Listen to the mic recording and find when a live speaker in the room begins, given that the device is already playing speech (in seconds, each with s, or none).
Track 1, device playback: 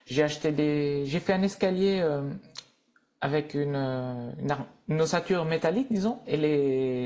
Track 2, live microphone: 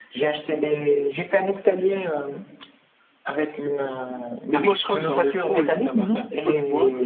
4.5 s